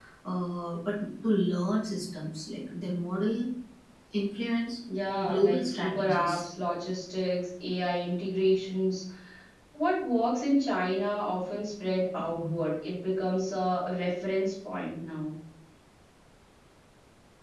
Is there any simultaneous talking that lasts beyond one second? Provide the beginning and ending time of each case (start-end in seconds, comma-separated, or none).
5.2-6.4